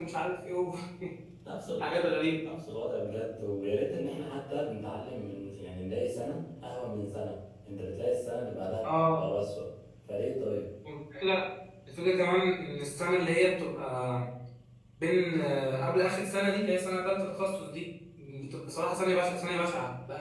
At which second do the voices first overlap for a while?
none

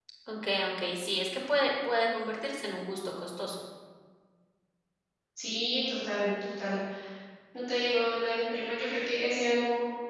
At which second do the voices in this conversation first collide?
none

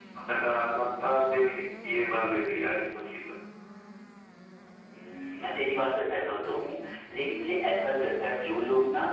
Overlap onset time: none

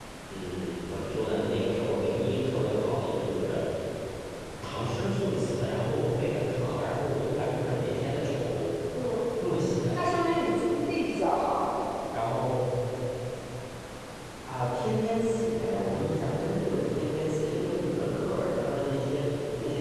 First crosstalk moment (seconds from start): none

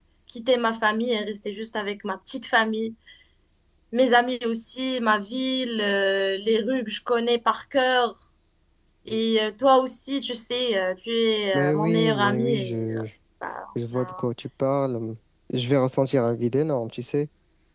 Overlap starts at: 11.5 s

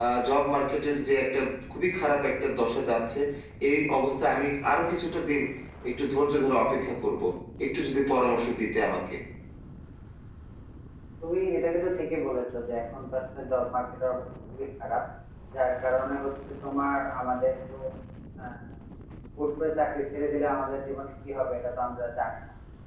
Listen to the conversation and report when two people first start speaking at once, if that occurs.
none

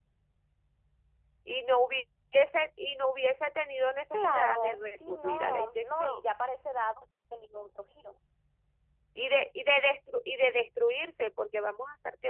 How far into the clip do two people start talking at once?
4.1 s

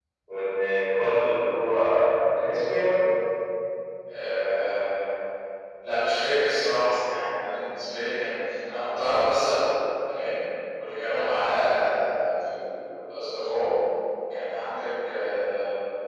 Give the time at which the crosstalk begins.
none

